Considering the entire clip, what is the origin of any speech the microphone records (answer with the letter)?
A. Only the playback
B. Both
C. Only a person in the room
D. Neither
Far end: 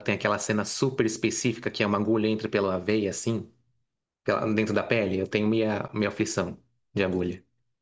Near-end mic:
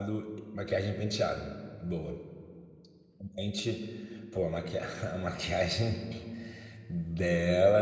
C